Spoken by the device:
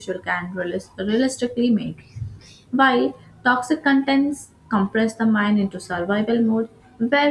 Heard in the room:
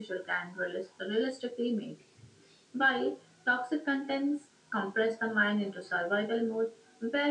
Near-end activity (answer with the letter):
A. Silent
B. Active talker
A